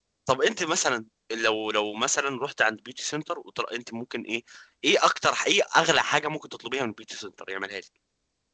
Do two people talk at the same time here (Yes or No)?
No